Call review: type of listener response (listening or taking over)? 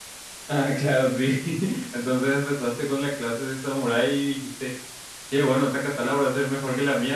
listening